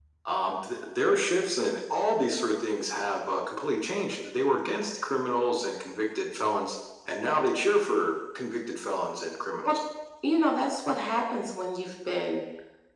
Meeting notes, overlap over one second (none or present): none